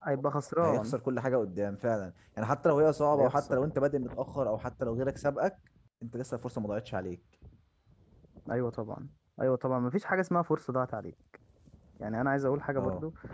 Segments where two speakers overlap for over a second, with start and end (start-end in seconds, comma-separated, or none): none